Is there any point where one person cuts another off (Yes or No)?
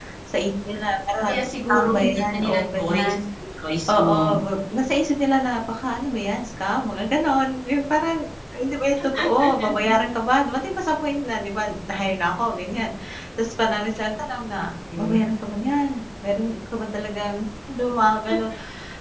Yes